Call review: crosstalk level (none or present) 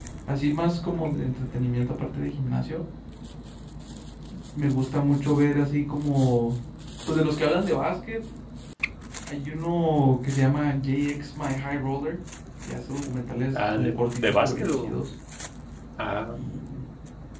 present